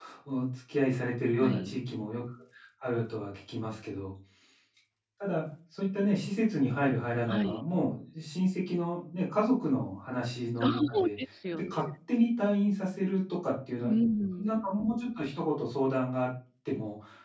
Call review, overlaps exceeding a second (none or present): none